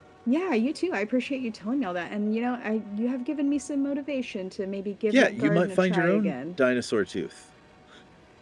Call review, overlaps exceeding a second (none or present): present